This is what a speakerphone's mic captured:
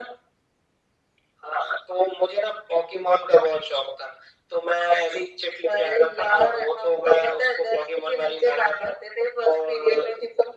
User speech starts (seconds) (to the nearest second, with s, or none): none